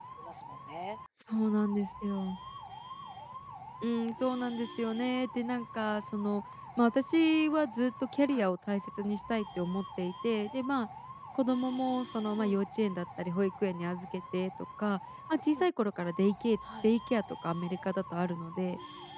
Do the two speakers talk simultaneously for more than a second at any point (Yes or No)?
No